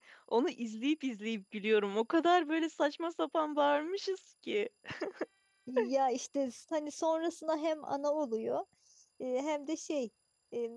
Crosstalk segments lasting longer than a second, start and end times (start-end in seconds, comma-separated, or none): none